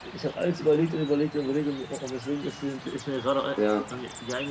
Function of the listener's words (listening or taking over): listening